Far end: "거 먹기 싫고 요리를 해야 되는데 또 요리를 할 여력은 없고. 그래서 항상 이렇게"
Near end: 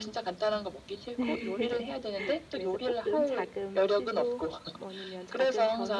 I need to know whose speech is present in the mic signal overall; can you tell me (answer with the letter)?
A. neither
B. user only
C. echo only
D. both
D